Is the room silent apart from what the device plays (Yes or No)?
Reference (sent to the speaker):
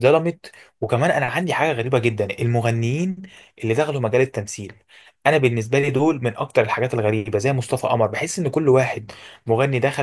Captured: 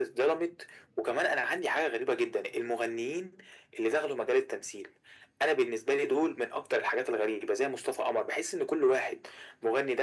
Yes